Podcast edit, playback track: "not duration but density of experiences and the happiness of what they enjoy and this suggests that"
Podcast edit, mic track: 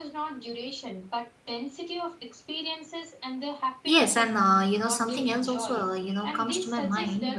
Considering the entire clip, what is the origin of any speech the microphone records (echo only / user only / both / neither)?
both